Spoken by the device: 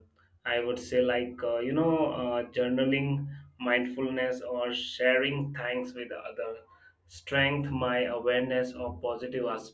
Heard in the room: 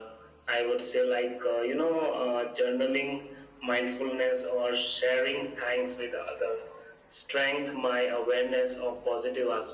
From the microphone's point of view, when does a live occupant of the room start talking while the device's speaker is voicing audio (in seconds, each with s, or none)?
none